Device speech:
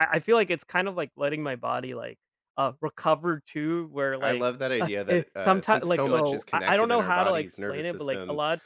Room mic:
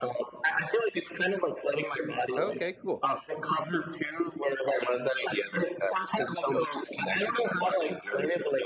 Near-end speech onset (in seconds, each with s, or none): 2.4 s